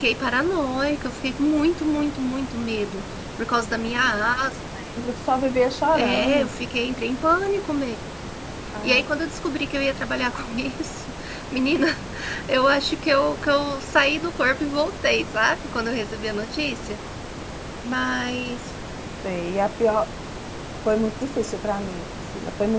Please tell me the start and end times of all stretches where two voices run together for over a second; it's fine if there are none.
none

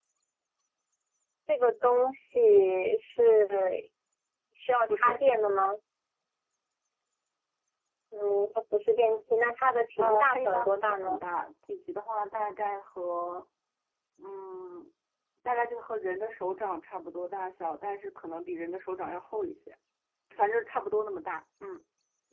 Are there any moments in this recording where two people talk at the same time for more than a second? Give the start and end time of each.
10.0-11.2

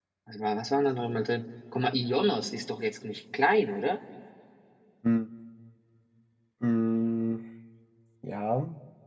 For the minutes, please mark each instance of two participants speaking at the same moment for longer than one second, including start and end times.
none

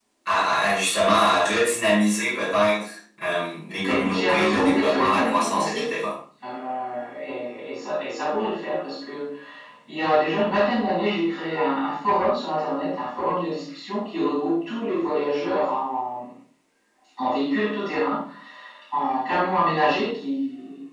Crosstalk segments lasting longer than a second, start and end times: 3.8-5.9

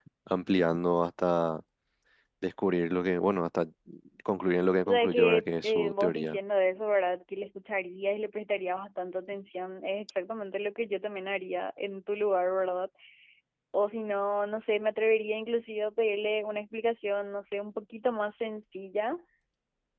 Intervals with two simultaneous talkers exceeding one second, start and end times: 4.9-6.4

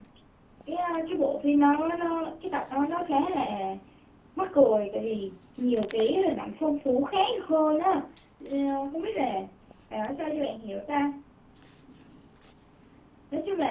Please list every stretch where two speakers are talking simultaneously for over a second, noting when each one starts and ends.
none

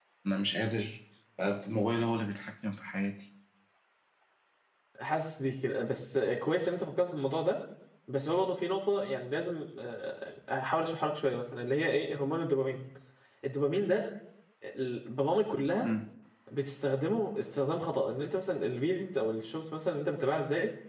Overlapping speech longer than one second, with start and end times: none

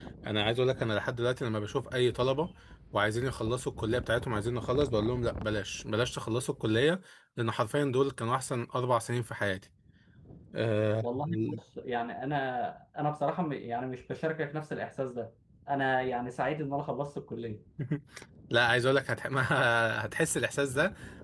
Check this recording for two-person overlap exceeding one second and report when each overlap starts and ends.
none

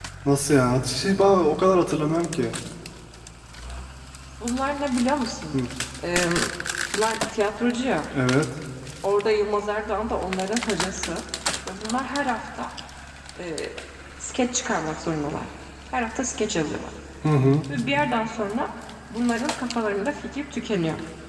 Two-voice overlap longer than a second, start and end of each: none

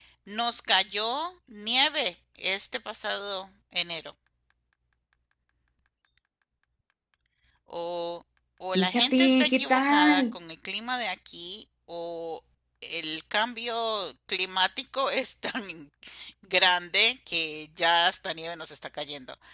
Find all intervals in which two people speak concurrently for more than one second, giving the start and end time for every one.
8.8-10.3

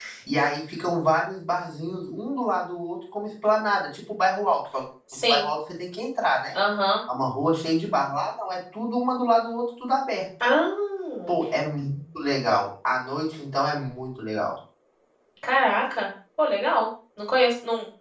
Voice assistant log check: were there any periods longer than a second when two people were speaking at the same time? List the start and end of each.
none

